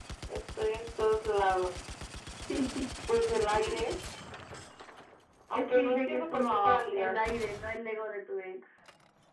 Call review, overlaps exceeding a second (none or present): present